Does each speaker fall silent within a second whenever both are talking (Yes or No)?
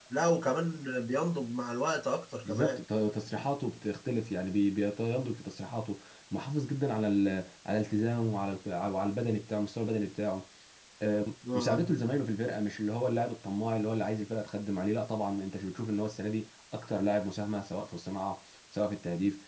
Yes